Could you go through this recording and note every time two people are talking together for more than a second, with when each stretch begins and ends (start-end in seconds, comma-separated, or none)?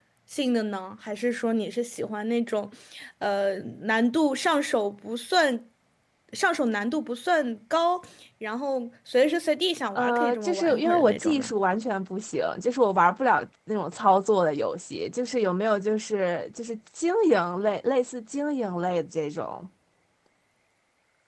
9.9-11.5